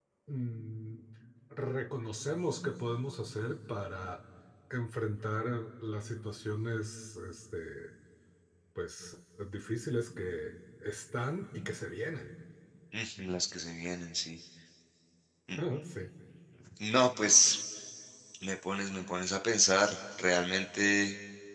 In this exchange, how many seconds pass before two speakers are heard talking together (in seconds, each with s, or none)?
none